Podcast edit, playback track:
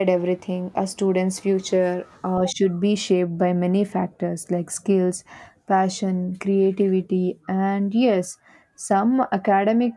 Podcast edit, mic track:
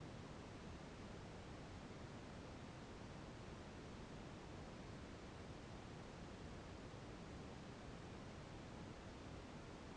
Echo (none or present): none